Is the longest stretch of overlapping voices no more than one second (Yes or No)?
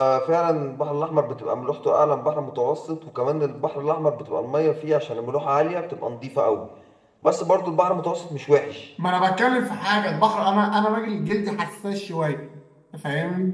Yes